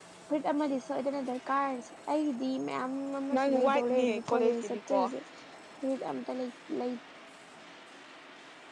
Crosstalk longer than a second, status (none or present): present